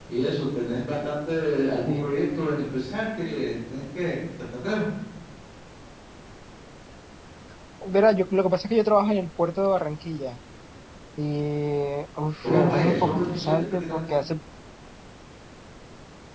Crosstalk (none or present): present